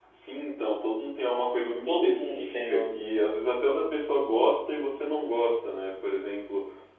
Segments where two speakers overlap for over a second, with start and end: 1.8-3.1

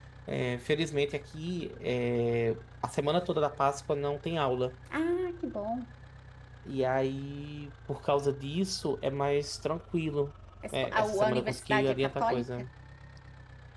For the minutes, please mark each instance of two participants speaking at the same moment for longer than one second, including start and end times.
10.7-12.4

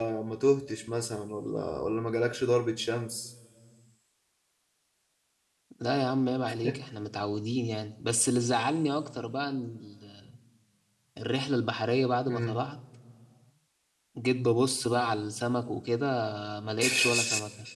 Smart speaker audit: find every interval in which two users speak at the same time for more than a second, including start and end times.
none

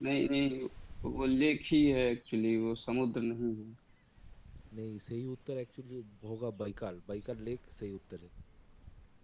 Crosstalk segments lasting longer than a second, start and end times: none

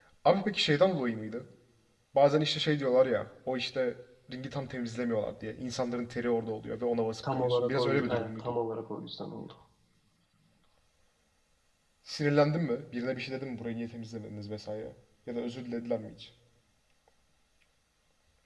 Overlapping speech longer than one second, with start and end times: 7.3-8.5

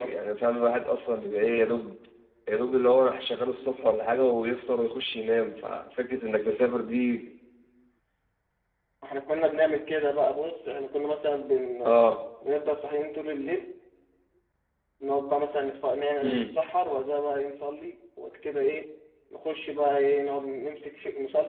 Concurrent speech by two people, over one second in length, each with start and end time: none

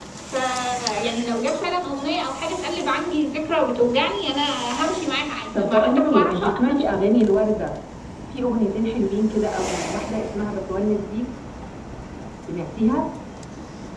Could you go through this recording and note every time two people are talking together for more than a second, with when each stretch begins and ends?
5.6-6.8

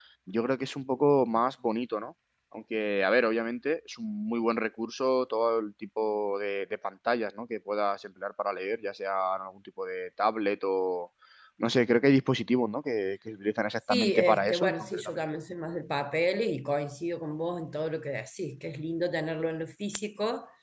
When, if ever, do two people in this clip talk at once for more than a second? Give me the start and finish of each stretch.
13.9-15.1

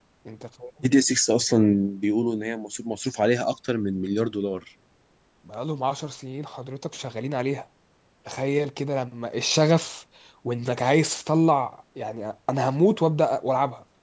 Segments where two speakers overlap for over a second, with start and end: none

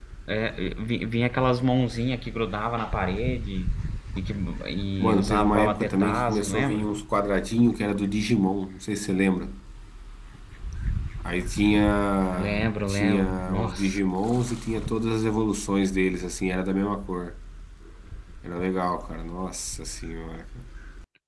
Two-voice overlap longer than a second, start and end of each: 5.0-6.9, 12.4-14.0

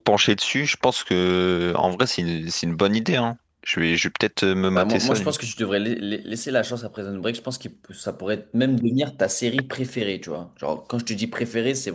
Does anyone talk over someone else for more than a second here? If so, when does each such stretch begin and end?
none

